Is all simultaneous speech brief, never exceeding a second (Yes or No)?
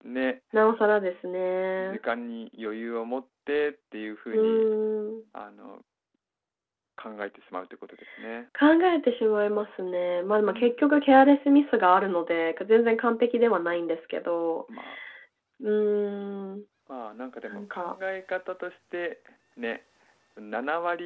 Yes